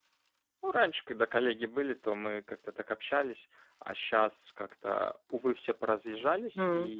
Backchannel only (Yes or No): Yes